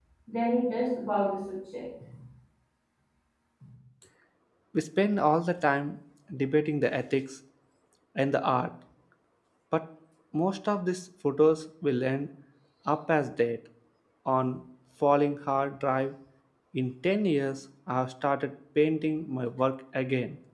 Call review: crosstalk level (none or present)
none